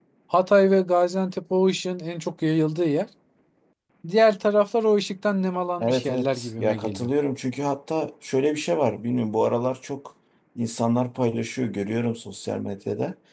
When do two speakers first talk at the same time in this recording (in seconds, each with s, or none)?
5.8 s